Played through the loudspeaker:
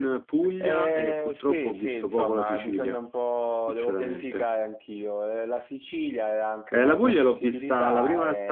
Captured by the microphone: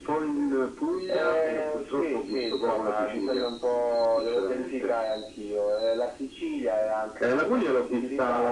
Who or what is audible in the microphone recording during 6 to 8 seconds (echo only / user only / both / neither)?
echo only